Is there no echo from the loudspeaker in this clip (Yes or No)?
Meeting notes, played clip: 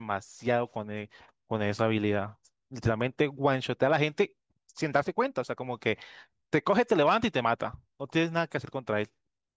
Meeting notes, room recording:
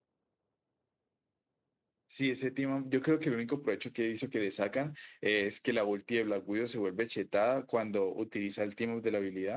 Yes